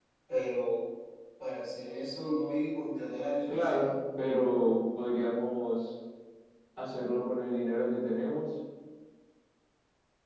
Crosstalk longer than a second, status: none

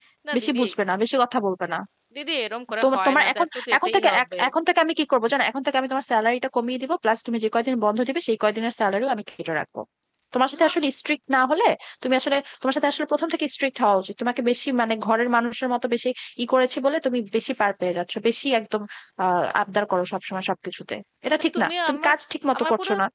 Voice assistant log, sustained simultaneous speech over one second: present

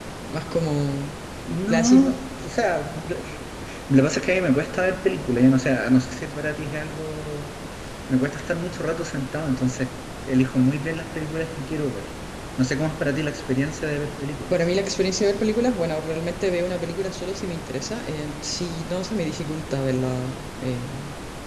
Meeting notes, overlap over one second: none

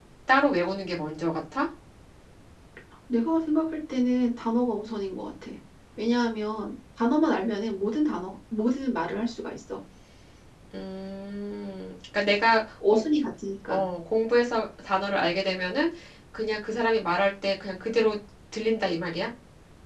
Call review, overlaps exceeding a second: none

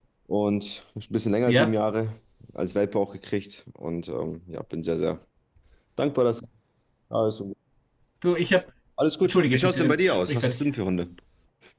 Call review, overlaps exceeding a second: present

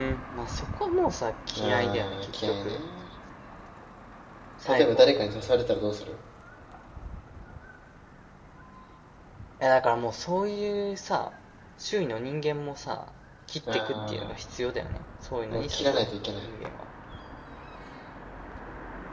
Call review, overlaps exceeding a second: present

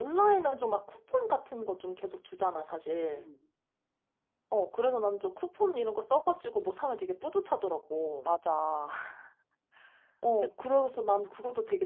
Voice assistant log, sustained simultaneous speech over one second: none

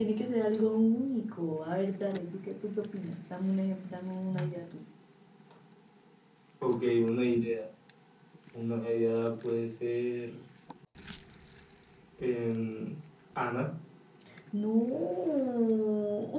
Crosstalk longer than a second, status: none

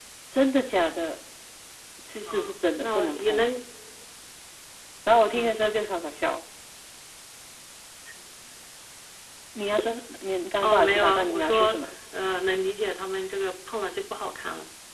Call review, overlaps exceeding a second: present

